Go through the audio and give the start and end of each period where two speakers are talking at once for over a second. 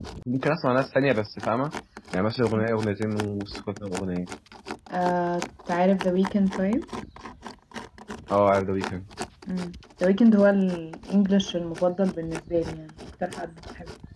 none

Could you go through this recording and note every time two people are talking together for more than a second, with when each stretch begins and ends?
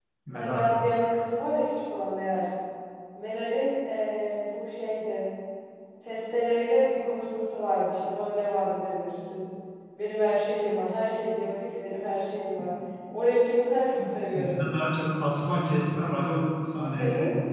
none

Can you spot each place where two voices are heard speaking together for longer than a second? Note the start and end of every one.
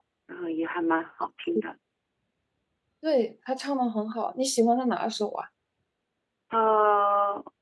none

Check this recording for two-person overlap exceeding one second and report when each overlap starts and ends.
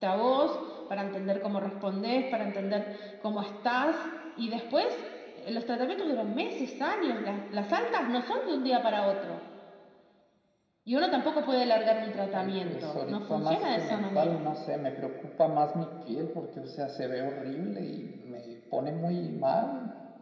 12.3-14.4

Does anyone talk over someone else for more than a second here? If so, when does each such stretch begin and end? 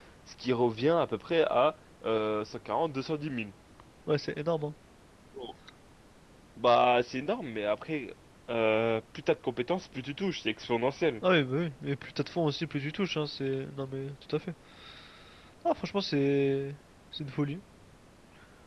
none

